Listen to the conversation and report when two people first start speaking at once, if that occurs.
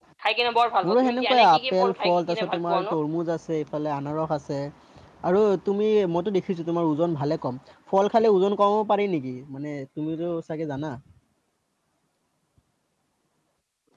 0.8 s

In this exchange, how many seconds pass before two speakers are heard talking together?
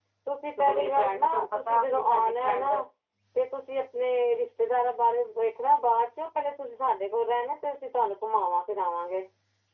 0.6 s

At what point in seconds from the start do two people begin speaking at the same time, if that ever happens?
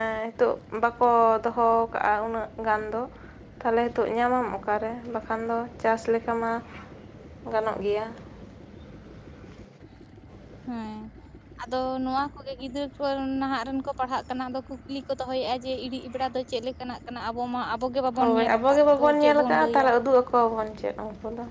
18.2 s

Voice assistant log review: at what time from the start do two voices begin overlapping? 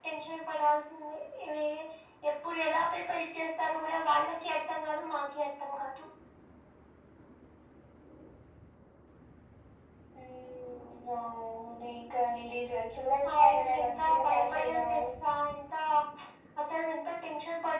13.2 s

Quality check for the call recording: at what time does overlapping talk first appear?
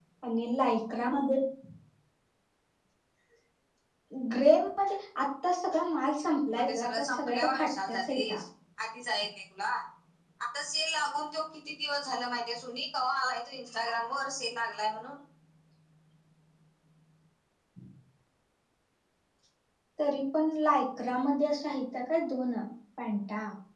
6.5 s

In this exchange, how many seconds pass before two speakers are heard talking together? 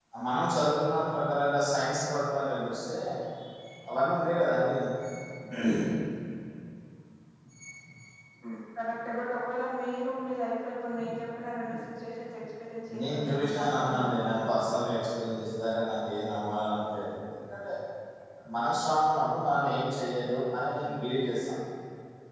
13.0 s

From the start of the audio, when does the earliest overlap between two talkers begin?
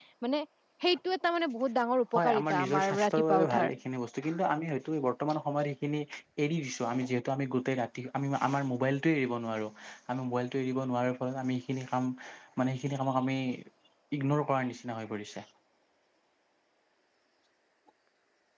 2.1 s

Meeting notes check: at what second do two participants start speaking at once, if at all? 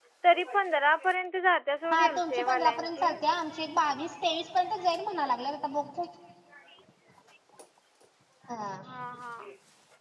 1.8 s

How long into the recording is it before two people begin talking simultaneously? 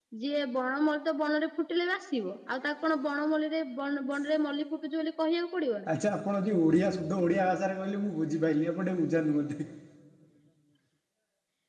none

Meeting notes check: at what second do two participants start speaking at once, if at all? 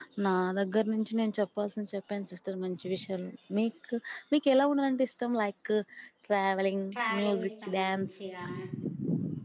6.9 s

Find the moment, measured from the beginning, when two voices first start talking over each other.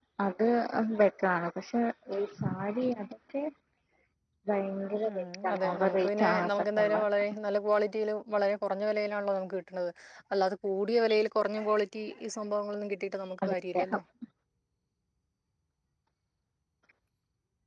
5.1 s

